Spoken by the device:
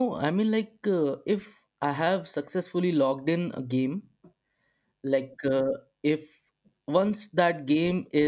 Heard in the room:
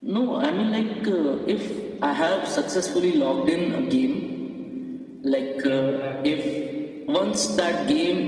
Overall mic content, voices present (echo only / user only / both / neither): both